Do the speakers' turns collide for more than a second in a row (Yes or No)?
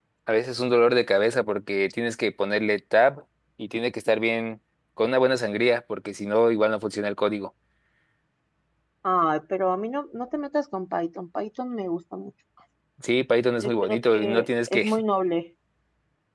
Yes